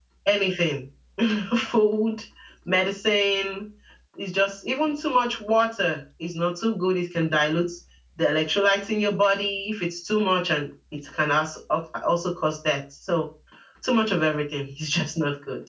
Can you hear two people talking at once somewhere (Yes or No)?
No